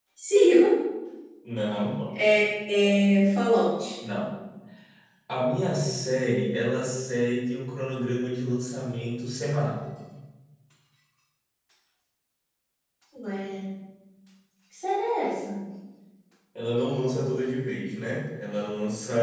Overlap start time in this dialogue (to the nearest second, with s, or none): none